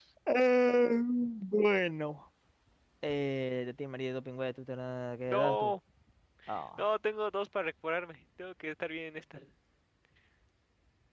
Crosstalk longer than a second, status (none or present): none